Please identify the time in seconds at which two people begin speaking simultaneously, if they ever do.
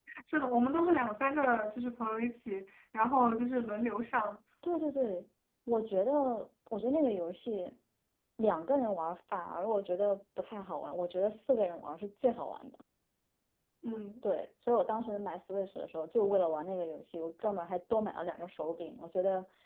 none

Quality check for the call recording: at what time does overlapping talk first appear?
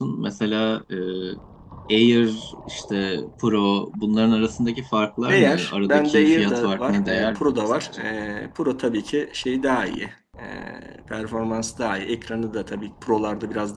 5.3 s

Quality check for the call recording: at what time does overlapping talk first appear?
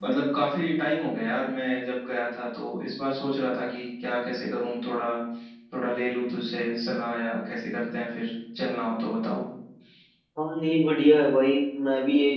none

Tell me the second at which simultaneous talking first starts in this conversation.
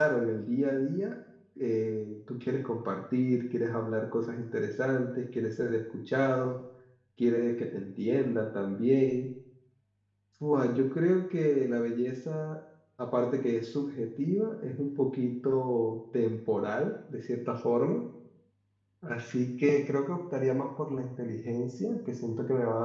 none

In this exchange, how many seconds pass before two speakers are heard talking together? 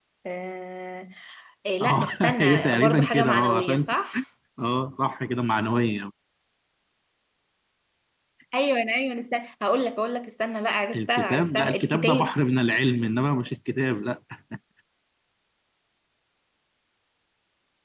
1.8 s

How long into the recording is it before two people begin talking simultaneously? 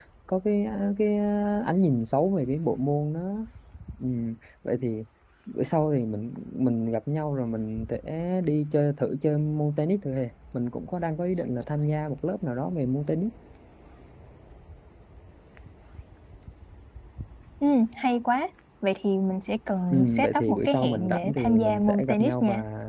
19.9 s

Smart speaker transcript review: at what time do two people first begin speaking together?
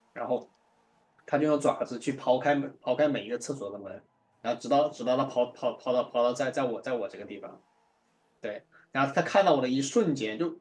none

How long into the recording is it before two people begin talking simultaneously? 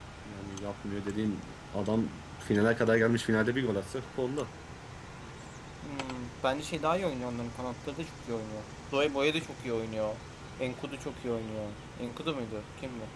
none

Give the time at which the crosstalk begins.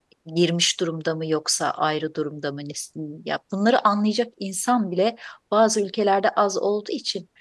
none

